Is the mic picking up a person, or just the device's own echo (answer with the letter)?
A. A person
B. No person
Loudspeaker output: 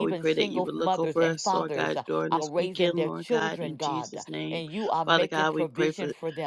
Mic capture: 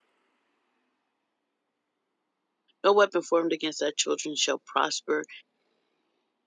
A